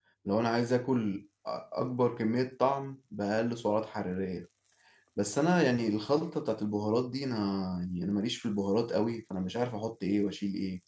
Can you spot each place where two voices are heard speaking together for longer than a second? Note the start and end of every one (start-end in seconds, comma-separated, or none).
none